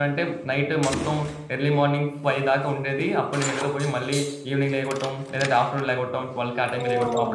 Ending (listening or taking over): listening